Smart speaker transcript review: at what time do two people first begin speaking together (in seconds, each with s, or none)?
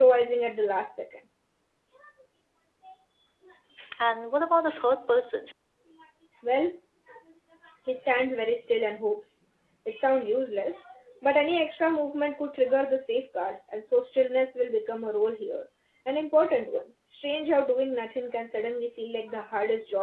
none